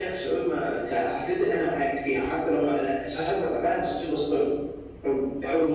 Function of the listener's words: listening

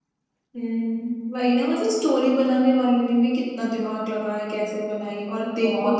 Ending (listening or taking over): listening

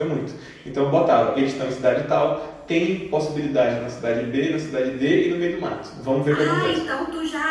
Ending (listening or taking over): taking over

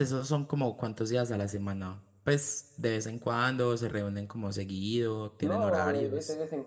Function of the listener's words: taking over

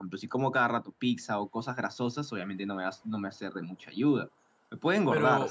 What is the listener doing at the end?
taking over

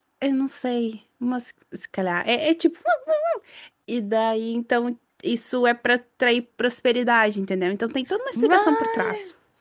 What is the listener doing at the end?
listening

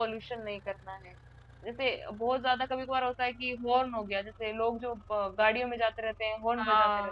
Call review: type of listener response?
taking over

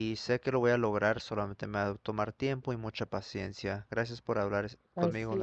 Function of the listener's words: taking over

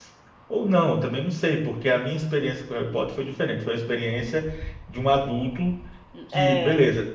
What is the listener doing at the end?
listening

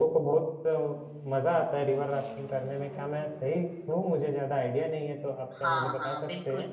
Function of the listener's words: taking over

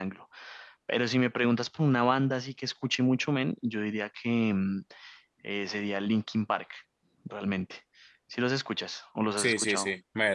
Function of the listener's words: taking over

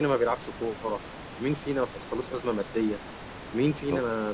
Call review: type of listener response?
listening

